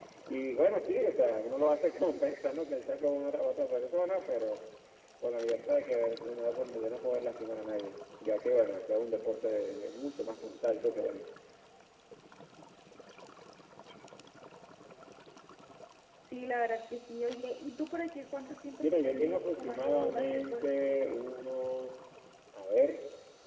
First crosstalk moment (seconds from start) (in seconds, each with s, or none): 18.8 s